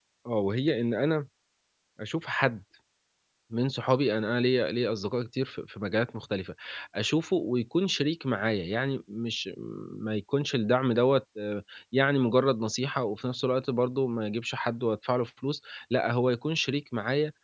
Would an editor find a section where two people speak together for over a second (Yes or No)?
No